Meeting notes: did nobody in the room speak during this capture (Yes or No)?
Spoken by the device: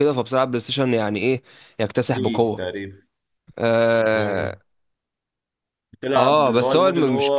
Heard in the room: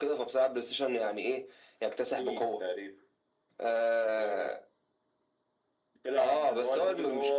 Yes